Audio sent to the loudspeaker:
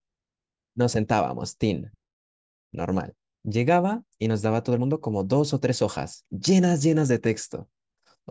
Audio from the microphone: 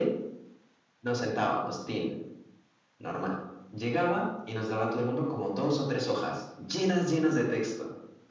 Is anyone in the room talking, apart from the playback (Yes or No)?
No